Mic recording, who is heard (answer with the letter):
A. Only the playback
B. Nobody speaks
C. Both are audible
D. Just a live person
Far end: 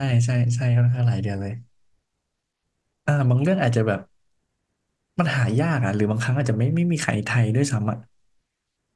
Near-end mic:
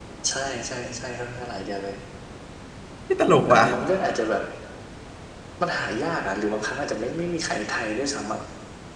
C